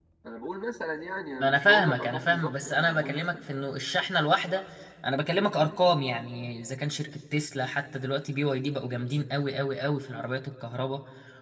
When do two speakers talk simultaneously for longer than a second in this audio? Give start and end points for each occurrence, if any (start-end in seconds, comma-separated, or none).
1.4-3.4